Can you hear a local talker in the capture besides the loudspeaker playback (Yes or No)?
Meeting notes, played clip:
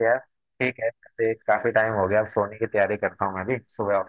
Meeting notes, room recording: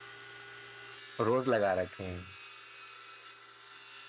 Yes